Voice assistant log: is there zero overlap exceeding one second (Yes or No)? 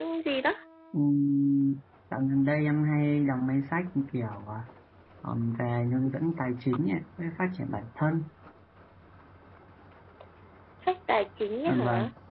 Yes